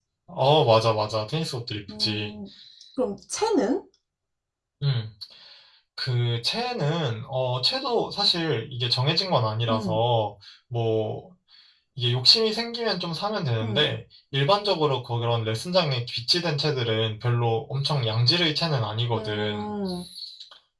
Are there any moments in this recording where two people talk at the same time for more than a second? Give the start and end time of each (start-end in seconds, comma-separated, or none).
none